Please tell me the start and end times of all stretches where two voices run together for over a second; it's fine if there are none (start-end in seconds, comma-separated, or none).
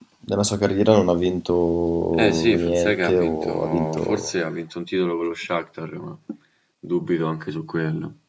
2.1-4.3